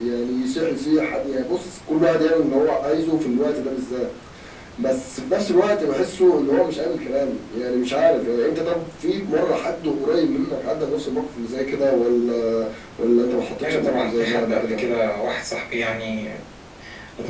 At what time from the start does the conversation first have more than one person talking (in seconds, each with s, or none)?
13.6 s